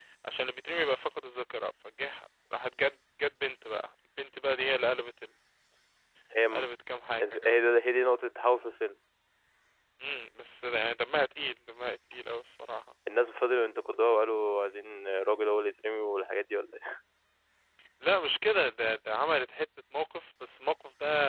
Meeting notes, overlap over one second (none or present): none